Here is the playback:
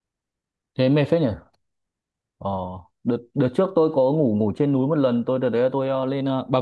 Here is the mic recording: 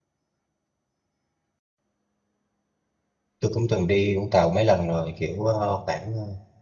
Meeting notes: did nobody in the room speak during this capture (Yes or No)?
No